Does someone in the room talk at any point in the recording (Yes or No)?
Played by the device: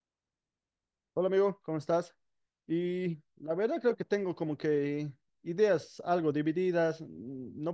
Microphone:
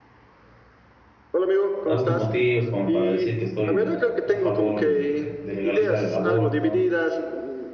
Yes